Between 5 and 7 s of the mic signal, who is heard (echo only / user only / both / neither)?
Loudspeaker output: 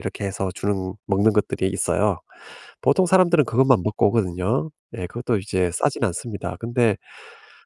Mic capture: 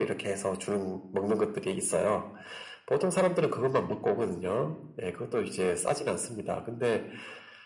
echo only